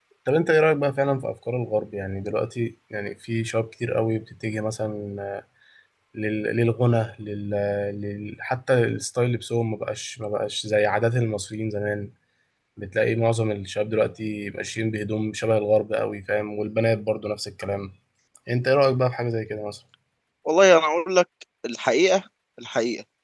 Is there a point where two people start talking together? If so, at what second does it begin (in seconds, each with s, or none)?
none